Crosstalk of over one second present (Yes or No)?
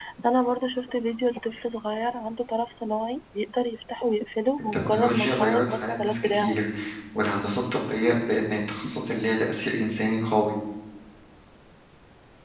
Yes